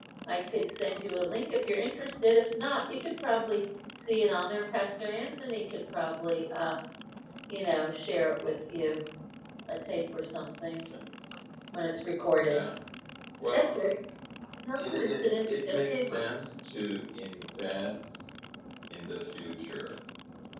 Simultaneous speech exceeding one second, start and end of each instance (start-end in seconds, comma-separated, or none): 14.8-16.2